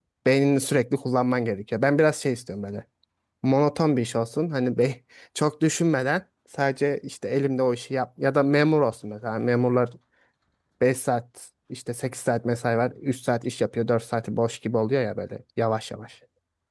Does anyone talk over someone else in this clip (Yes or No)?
No